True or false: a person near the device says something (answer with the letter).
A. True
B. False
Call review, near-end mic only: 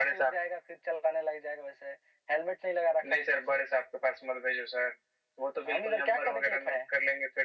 B